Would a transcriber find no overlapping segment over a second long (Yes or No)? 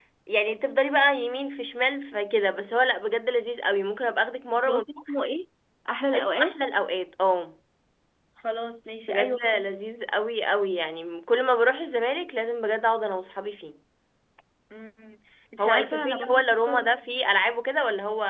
No